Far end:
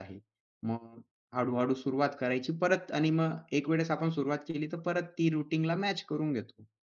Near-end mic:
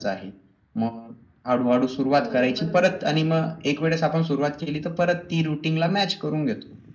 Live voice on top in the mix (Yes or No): No